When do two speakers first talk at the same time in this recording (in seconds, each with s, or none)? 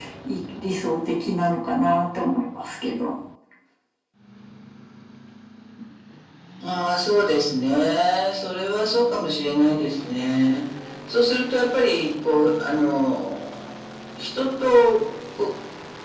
none